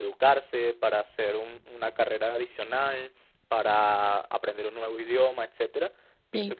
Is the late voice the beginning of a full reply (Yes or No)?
No